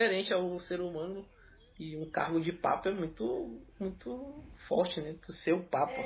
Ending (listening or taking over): taking over